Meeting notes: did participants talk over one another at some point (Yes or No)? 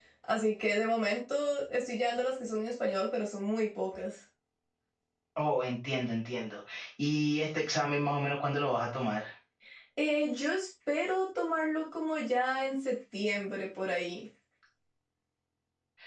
No